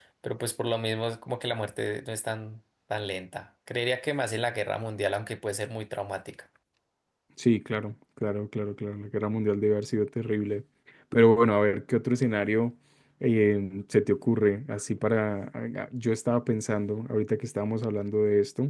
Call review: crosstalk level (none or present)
none